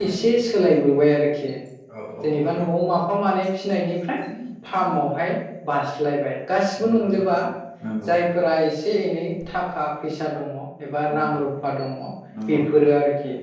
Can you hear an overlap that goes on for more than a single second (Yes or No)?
No